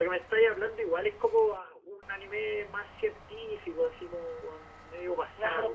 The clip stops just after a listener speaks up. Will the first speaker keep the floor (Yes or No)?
No